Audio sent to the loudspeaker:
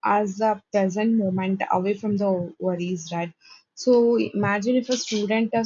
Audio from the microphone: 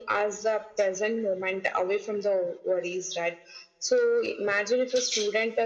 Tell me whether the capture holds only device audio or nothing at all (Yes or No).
Yes